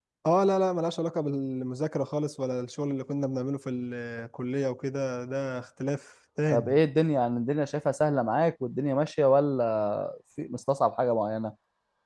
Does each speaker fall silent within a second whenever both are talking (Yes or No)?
Yes